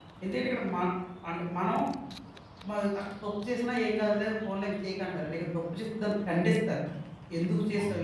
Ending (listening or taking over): listening